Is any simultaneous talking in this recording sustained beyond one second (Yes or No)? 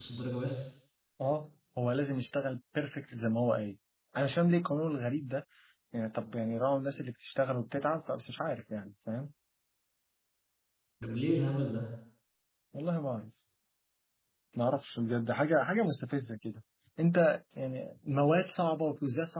No